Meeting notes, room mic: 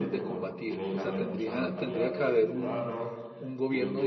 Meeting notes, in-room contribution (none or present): present